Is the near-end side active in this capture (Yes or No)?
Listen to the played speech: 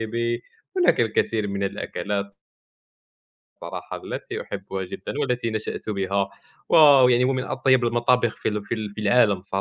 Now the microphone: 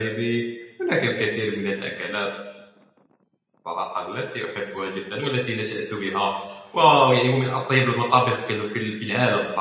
No